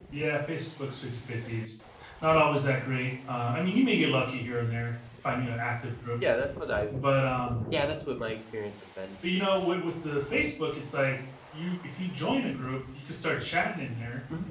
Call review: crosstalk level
none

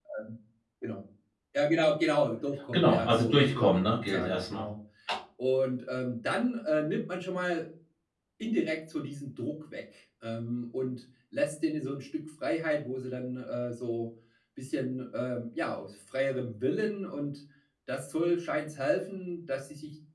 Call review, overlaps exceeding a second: present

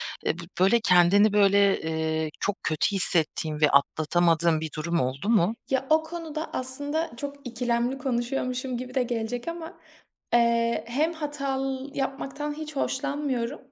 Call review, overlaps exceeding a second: none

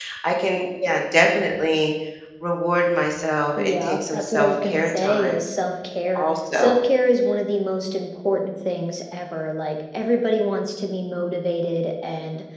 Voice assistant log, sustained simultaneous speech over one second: present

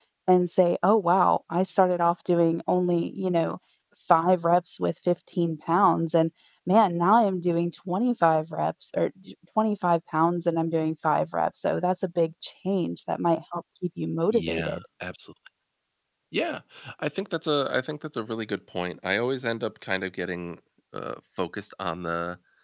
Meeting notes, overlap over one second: none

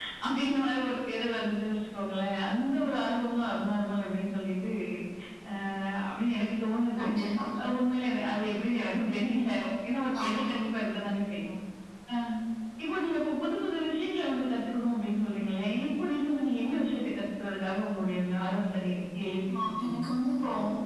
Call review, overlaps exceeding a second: none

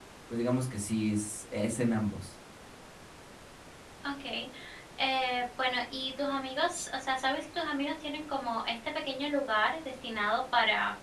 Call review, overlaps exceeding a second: none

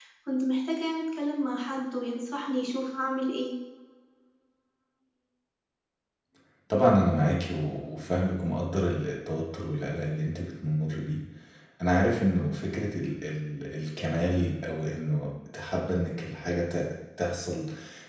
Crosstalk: none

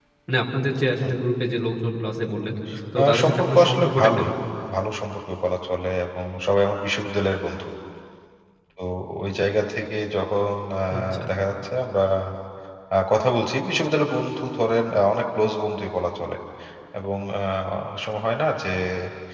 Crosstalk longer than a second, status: present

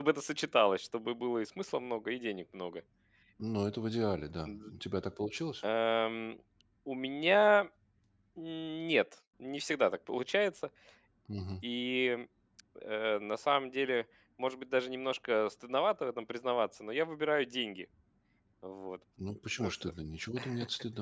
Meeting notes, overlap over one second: none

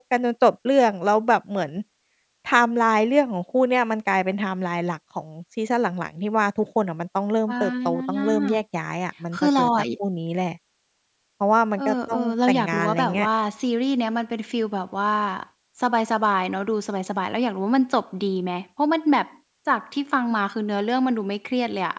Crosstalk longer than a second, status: present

